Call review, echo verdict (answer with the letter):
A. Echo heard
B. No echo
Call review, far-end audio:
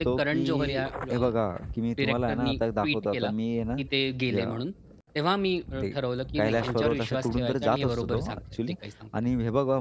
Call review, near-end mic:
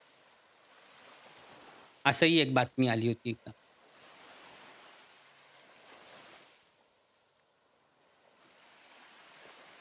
B